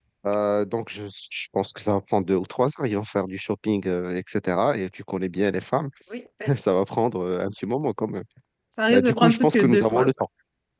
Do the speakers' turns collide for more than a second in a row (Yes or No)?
Yes